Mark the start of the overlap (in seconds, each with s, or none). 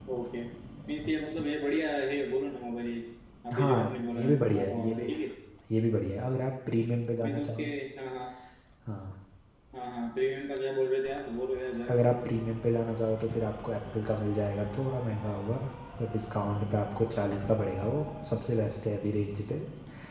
3.5 s